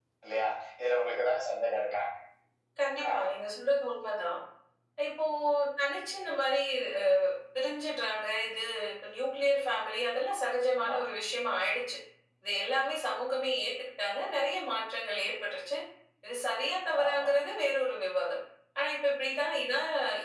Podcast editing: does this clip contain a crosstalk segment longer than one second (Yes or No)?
No